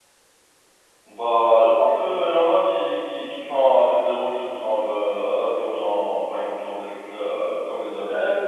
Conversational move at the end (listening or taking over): taking over